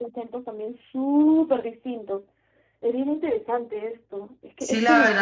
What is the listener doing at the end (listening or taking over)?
taking over